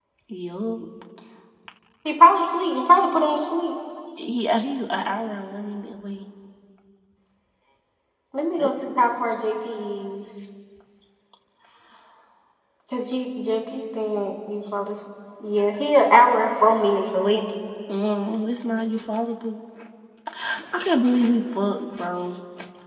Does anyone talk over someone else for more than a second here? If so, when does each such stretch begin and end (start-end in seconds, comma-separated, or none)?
none